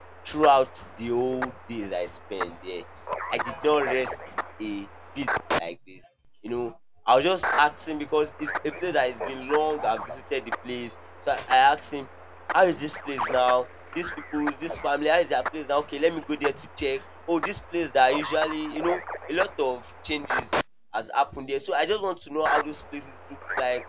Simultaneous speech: No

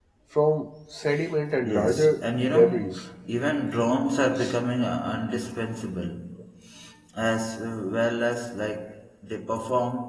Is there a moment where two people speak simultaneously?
Yes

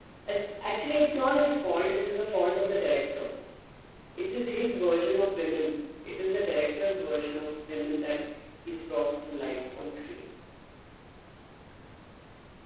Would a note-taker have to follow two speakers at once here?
No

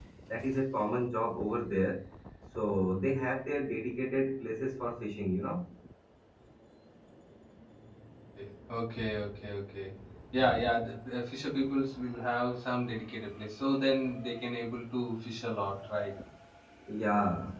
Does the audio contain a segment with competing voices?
No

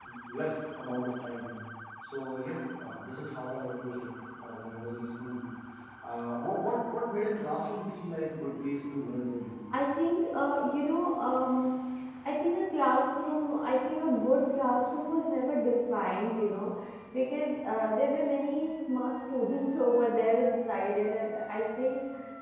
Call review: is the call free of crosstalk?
Yes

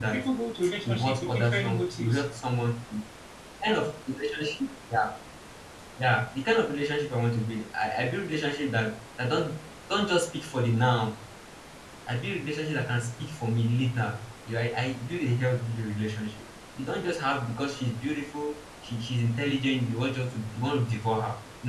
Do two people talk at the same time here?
Yes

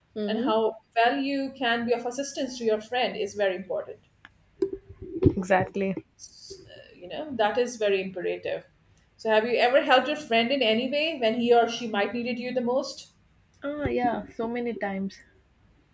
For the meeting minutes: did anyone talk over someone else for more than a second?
No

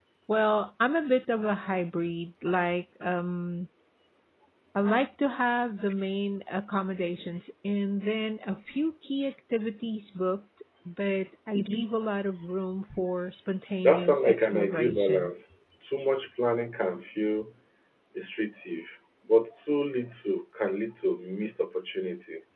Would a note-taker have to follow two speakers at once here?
Yes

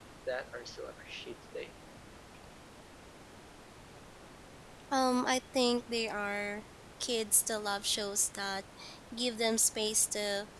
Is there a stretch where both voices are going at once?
No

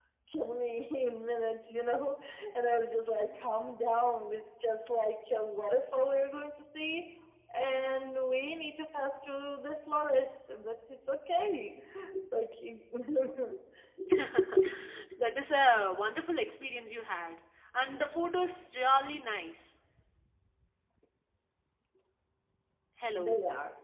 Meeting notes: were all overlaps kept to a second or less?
Yes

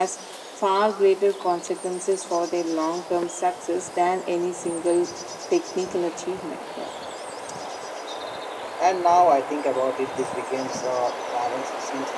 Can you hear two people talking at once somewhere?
No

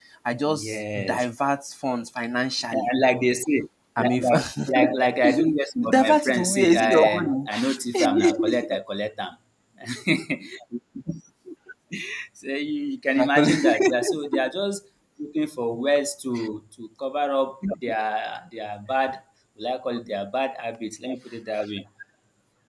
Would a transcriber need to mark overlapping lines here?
Yes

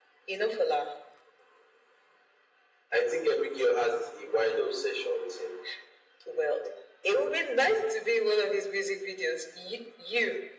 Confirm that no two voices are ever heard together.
Yes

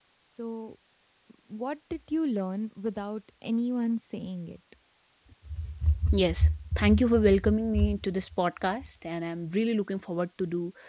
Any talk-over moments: No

